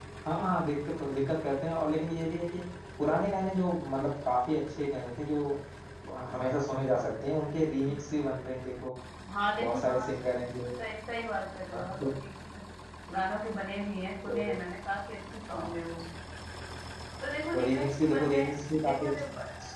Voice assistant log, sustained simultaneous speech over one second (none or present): present